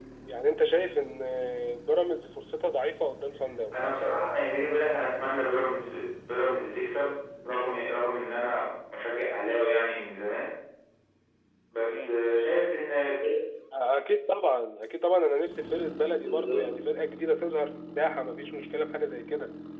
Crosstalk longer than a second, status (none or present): none